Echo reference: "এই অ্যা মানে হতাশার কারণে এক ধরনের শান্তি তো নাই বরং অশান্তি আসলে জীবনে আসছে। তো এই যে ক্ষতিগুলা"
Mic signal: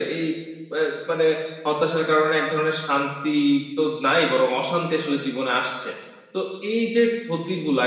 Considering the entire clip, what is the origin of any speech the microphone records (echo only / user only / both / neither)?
echo only